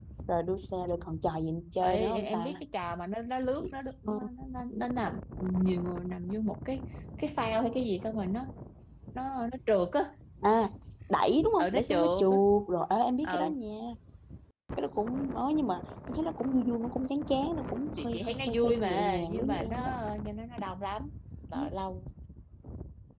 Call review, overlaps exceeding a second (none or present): present